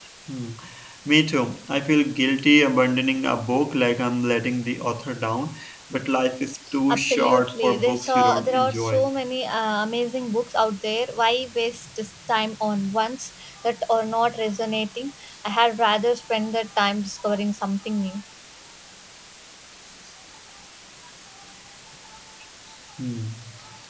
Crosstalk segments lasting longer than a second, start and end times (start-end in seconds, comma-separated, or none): 6.9-9.1